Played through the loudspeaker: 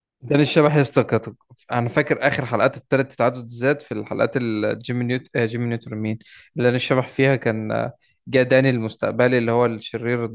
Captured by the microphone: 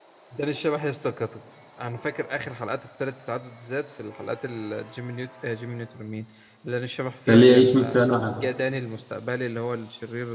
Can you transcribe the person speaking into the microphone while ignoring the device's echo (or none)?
خليه يعيش 100 سنه عادي.